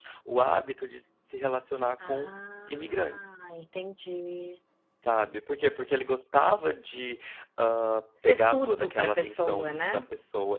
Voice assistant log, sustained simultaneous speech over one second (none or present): present